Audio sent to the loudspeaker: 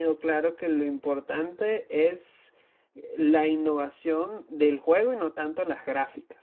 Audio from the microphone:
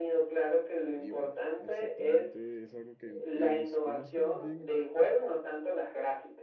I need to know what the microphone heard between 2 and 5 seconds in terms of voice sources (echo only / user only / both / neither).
both